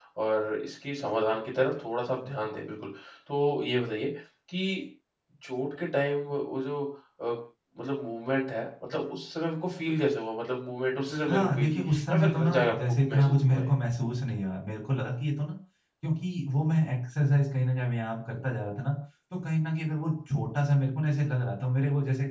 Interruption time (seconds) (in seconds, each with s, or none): 11.3 s